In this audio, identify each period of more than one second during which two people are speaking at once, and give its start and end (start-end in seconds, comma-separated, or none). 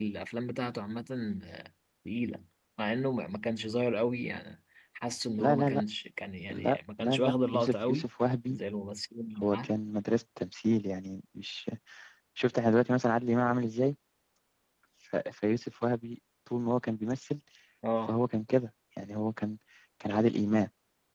6.5-8.1